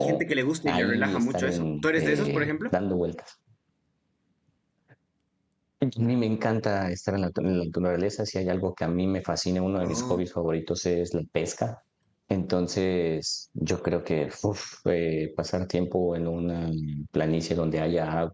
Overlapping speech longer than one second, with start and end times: 0.7-2.7

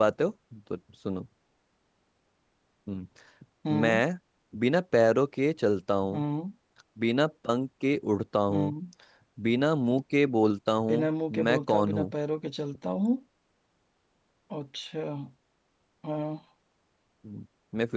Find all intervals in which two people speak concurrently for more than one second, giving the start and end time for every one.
10.9-12.1

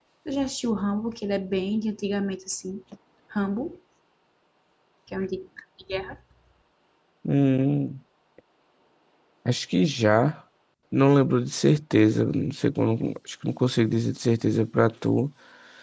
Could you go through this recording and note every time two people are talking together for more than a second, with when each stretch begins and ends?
none

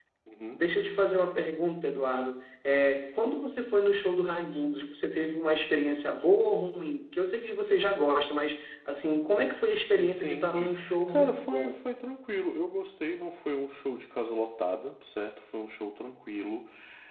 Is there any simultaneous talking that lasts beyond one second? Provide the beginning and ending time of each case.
10.0-11.8

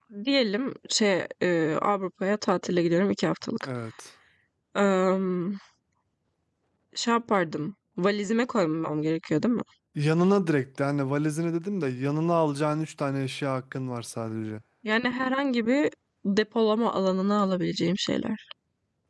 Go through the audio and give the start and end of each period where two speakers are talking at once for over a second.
none

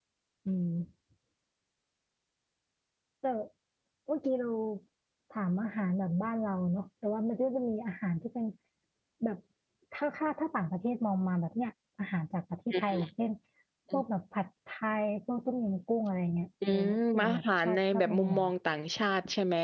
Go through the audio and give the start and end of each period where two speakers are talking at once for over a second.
16.7-18.4

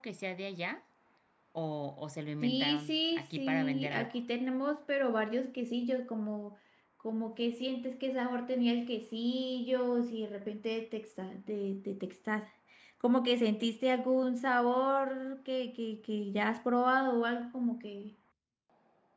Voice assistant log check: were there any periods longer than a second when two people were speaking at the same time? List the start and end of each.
2.4-4.1

